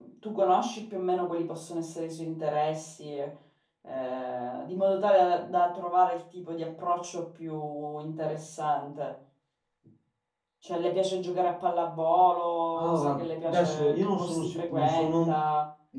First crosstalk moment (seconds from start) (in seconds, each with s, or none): 12.8 s